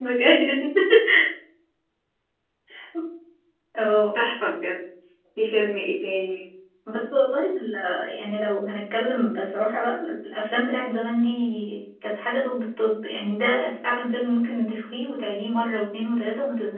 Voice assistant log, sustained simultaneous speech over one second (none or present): none